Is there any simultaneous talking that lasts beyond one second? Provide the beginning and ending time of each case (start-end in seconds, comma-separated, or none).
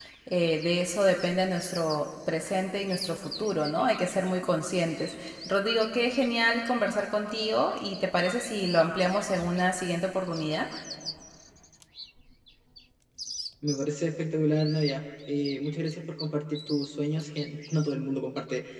none